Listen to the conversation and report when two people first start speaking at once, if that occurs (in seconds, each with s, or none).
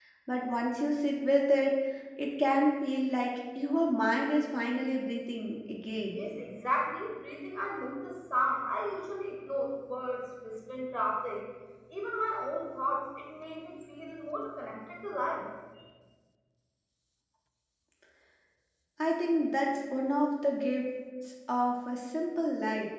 none